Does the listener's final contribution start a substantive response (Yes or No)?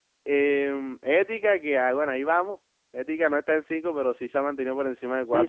Yes